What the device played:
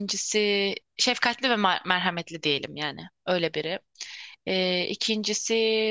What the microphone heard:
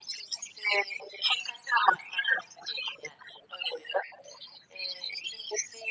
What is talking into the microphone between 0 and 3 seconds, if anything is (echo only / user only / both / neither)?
echo only